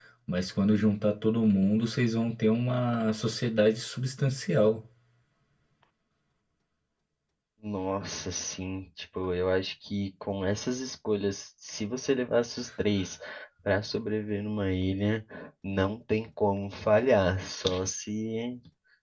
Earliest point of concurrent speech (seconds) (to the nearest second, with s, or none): none